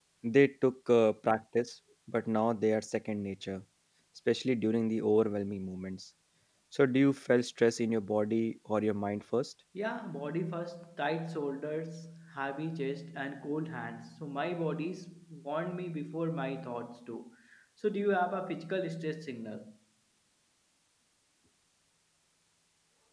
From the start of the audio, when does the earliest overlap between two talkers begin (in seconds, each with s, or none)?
none